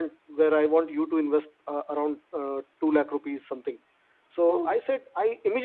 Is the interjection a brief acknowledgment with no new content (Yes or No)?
Yes